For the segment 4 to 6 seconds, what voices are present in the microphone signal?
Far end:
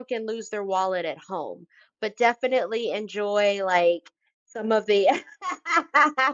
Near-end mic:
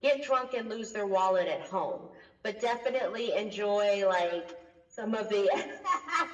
echo only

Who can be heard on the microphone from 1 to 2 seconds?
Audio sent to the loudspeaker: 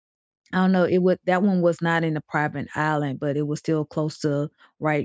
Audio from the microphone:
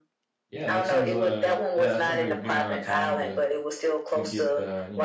both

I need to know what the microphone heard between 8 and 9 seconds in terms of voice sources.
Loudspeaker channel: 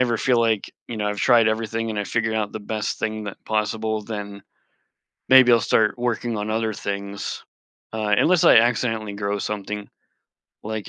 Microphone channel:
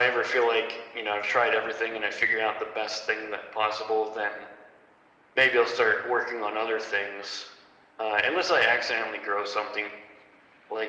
echo only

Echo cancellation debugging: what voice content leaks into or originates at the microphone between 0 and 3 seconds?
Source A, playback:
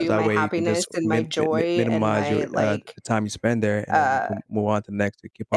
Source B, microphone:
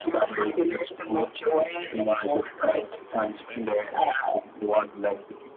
echo only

